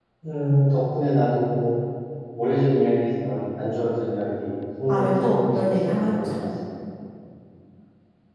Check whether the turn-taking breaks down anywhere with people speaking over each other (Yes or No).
Yes